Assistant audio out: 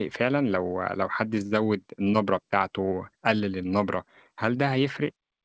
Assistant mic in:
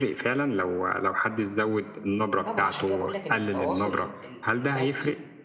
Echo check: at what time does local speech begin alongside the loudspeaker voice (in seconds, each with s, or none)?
2.4 s